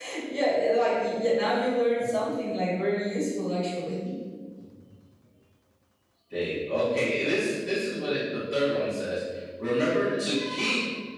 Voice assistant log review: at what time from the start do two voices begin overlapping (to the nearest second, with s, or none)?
none